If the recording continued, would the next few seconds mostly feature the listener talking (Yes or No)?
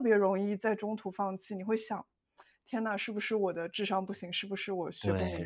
Yes